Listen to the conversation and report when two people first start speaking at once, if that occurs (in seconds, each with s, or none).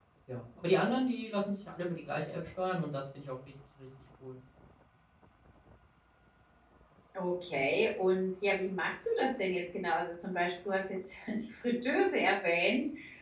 none